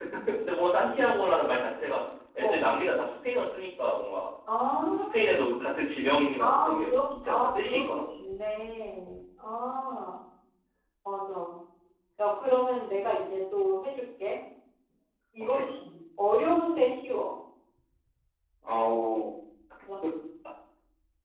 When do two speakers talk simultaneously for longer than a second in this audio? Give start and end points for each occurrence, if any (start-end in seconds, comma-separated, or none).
6.4-7.9